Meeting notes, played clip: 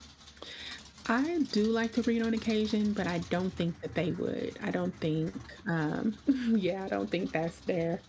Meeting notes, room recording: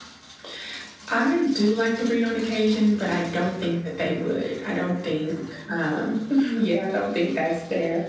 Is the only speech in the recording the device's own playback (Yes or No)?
Yes